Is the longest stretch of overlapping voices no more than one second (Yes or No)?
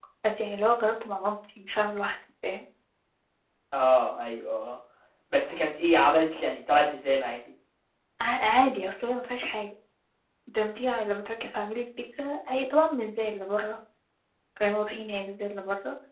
Yes